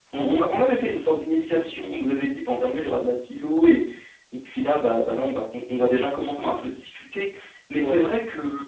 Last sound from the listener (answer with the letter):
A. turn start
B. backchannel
B